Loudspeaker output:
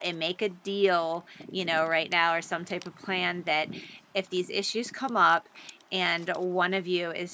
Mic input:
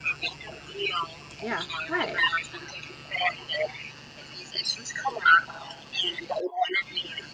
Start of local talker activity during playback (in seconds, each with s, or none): 1.4 s